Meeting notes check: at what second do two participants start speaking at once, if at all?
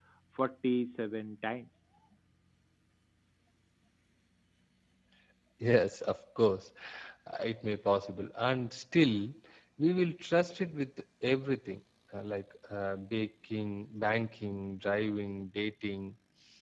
none

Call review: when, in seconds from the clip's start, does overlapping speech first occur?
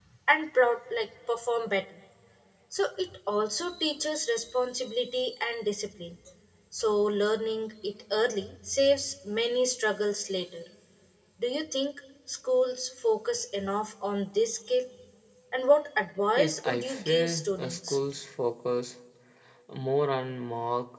16.4 s

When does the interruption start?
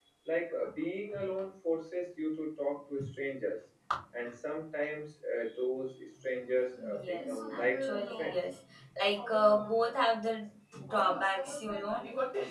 6.8 s

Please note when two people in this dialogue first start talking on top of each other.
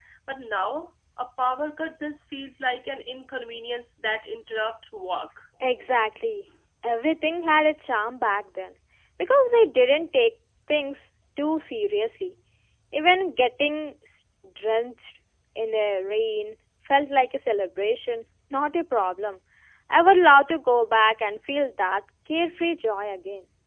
none

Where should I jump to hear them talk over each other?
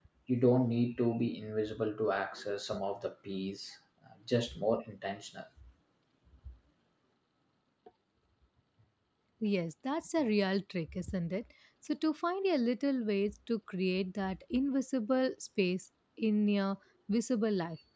none

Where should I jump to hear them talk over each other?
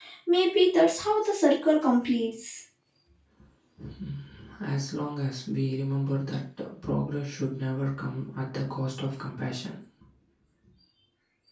none

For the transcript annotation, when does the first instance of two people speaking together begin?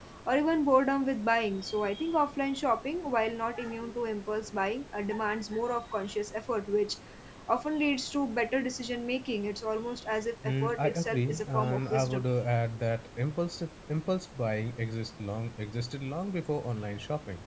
10.4 s

